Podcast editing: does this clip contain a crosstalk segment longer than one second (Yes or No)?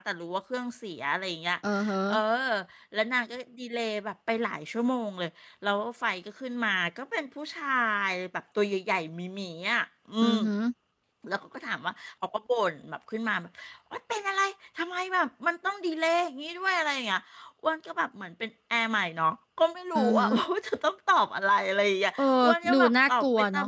Yes